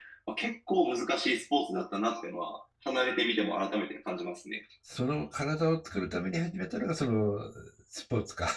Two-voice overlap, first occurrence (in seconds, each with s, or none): none